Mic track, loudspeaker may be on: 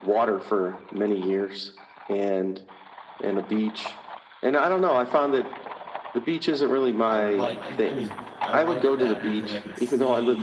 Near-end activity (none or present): present